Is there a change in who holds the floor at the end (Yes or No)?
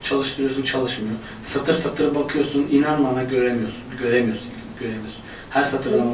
Yes